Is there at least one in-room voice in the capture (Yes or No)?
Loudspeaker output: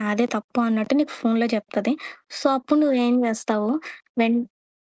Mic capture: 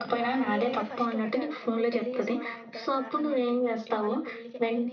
Yes